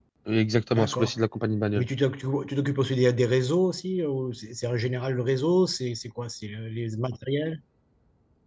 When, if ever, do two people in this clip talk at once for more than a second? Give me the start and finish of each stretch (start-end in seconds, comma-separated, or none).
none